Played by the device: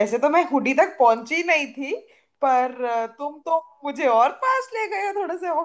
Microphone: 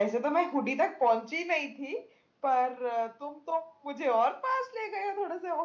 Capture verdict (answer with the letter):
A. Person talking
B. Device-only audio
B